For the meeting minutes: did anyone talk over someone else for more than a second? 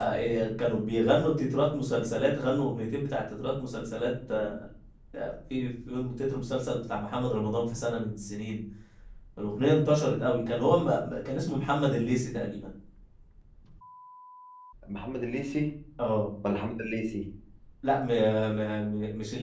No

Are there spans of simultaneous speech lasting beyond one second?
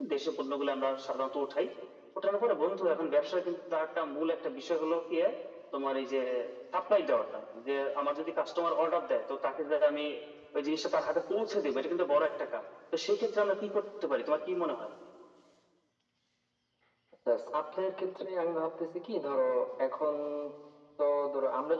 No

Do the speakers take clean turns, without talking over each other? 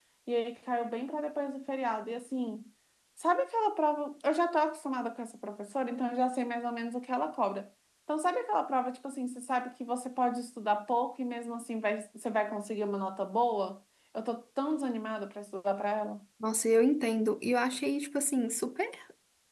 Yes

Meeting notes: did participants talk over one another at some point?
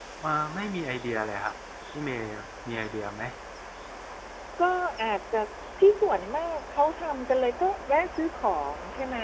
No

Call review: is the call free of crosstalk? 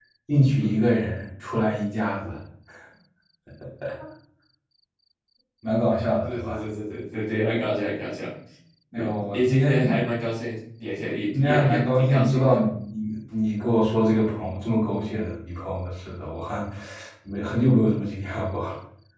No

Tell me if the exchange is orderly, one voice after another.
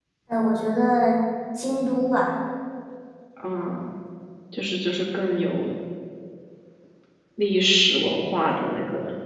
Yes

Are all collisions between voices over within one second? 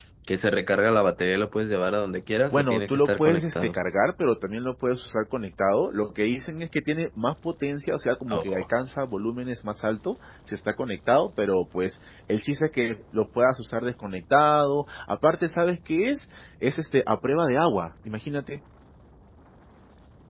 No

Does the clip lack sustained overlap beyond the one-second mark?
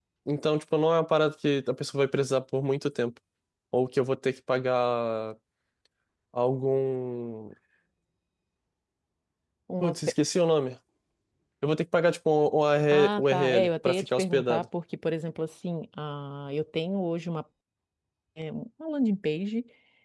No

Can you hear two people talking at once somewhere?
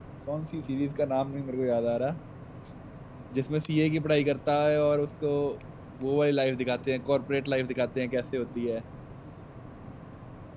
No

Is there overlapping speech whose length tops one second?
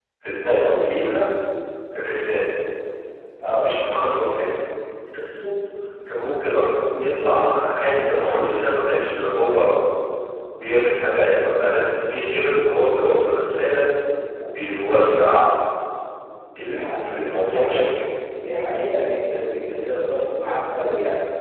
Yes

